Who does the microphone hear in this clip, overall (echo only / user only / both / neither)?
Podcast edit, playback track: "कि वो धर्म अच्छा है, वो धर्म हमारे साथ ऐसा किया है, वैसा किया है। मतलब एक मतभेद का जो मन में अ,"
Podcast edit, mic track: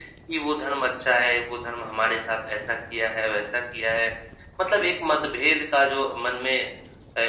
echo only